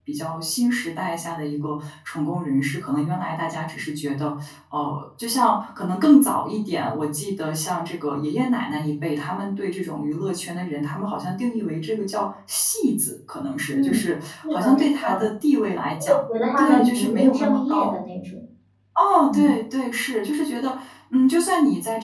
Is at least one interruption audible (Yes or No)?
Yes